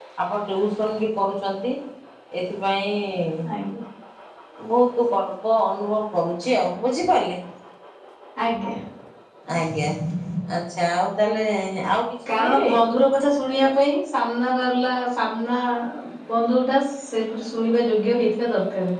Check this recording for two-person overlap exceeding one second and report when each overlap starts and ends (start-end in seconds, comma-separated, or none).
none